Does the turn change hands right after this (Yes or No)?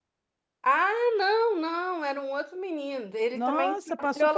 Yes